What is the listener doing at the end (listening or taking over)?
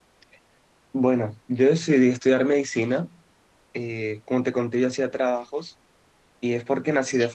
listening